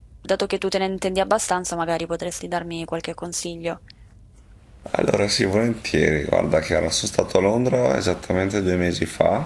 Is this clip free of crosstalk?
Yes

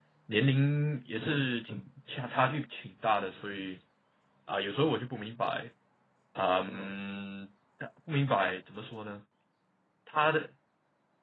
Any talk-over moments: No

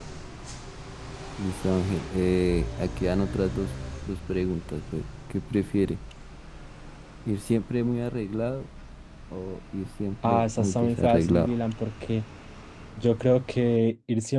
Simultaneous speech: Yes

